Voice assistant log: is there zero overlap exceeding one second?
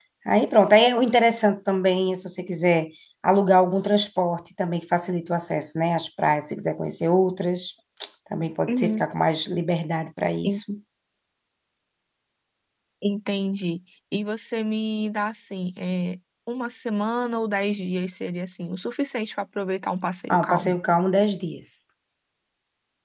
Yes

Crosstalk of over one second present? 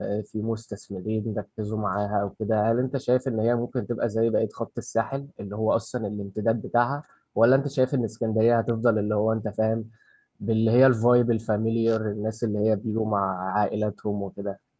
No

